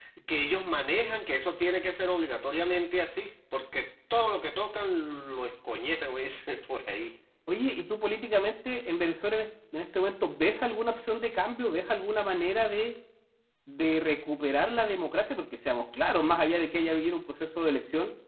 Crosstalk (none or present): none